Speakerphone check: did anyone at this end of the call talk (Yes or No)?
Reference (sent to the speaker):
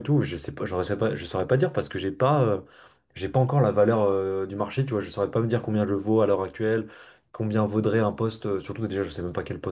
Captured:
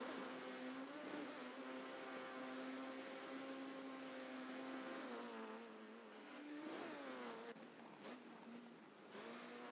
No